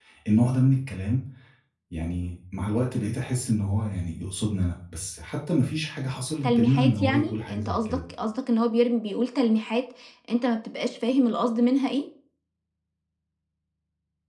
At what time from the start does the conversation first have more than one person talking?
6.4 s

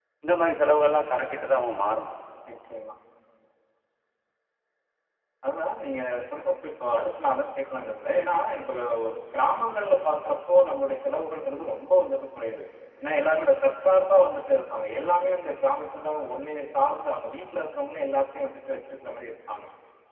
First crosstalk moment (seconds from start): none

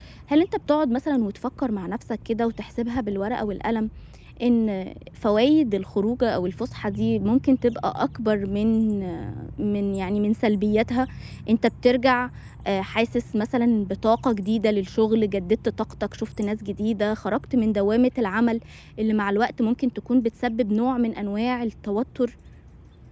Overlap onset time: none

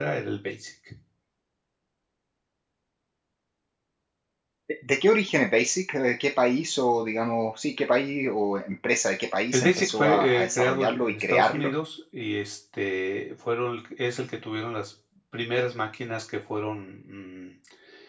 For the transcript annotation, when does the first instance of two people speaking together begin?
9.5 s

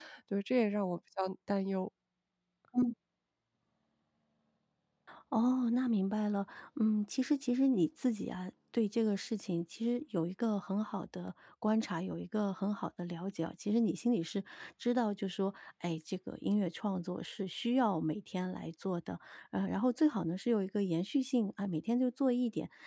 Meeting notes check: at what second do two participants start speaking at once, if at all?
none

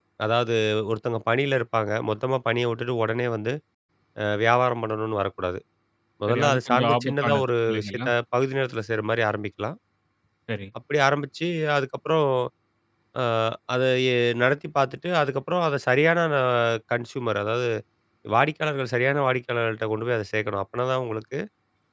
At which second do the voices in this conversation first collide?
6.3 s

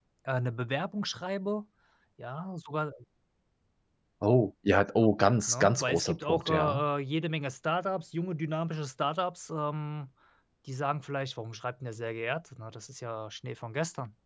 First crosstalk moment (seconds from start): 5.5 s

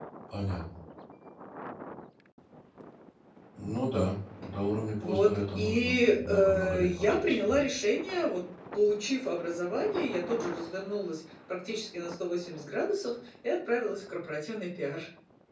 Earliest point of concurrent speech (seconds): 5.0 s

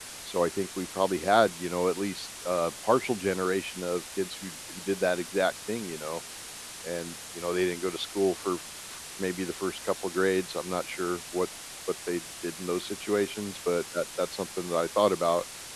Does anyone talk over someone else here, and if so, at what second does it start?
none

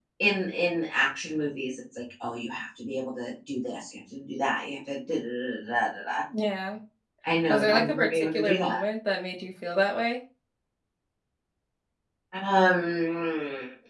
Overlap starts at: 7.5 s

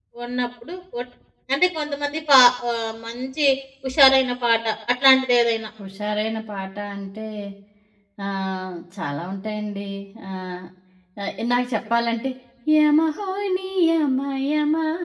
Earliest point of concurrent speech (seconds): none

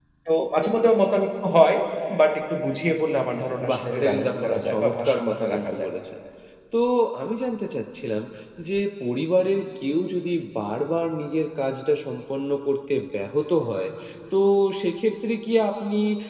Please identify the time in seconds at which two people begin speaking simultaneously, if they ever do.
3.6 s

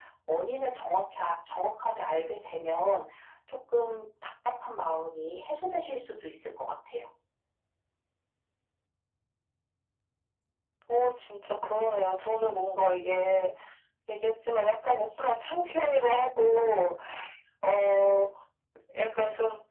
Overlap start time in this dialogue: none

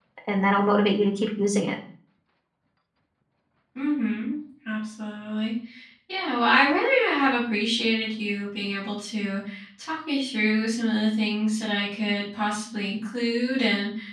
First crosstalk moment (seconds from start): none

